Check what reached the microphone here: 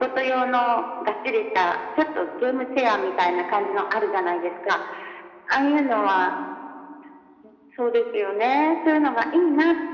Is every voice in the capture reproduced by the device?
Yes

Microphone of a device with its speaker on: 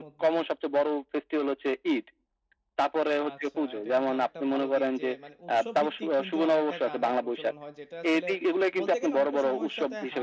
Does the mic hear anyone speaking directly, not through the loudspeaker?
Yes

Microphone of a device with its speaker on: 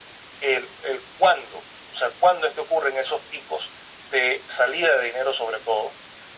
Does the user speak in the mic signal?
No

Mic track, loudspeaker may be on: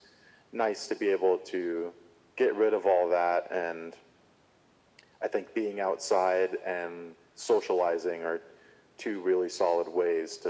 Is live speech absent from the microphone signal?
Yes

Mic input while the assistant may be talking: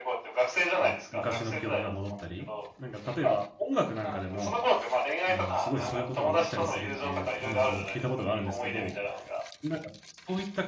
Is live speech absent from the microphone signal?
No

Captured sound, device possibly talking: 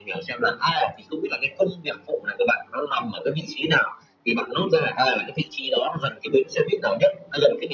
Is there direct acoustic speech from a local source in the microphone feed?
No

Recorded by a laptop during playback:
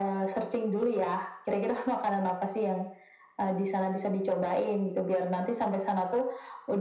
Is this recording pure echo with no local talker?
Yes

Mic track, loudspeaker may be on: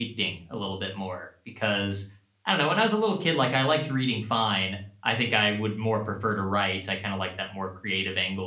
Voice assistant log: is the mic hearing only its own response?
No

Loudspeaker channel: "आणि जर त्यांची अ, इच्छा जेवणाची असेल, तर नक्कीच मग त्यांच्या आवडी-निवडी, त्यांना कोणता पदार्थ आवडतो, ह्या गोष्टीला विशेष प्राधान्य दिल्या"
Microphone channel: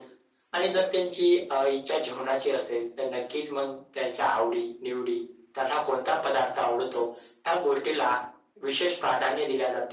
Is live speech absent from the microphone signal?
Yes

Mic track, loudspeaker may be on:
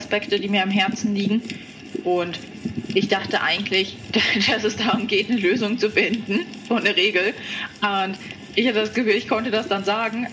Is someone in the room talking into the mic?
No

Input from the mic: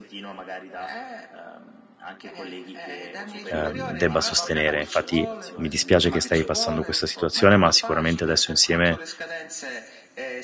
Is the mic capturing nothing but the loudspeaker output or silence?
No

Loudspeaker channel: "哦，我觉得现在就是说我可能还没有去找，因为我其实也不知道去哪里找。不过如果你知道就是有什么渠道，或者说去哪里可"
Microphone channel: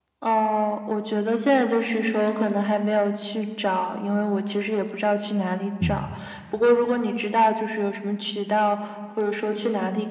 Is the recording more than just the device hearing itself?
Yes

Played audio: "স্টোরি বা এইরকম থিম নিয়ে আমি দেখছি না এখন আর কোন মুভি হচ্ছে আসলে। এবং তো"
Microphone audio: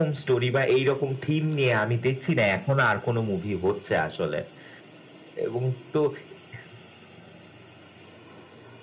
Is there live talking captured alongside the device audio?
No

